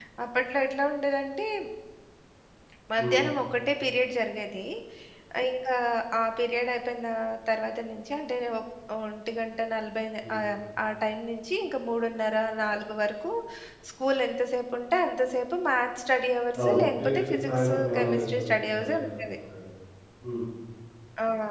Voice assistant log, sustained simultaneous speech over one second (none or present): present